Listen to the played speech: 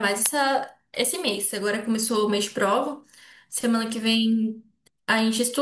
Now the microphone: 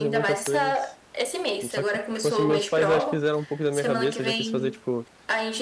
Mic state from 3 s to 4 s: both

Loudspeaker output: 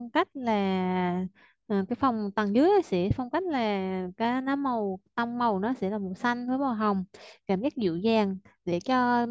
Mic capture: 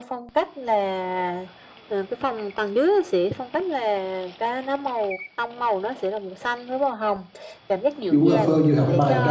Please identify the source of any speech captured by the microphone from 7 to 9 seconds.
both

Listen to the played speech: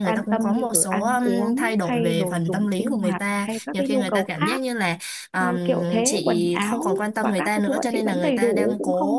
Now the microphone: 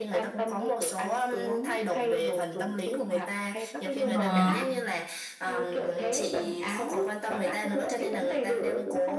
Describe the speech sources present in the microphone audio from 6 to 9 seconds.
echo only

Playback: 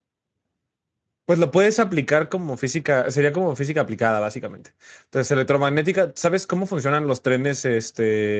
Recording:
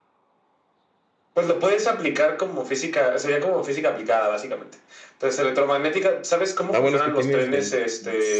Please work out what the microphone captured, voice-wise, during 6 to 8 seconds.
both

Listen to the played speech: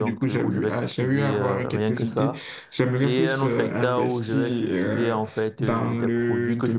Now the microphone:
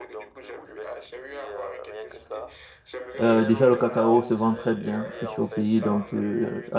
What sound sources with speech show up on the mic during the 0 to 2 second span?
echo only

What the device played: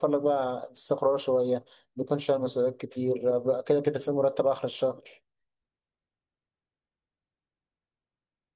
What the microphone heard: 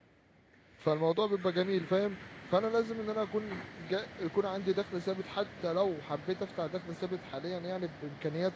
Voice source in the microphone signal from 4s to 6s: user only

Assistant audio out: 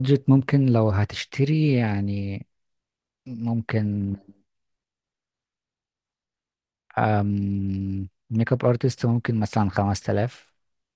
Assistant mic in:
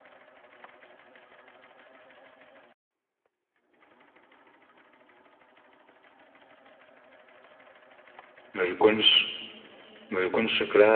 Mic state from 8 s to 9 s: user only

